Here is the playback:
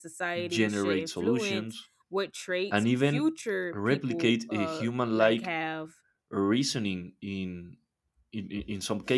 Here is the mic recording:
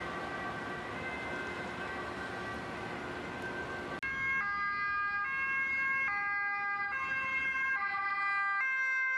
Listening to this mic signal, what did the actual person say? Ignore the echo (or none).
none